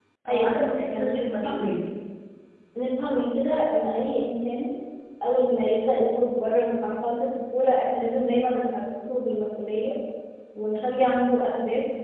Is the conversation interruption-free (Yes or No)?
No